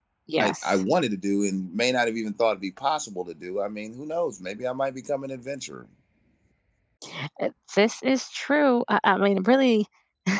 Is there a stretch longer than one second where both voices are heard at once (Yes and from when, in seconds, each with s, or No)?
No